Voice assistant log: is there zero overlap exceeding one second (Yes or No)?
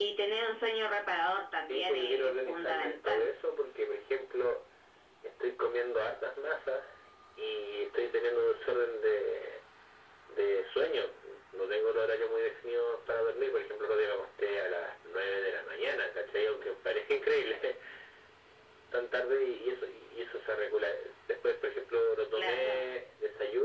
No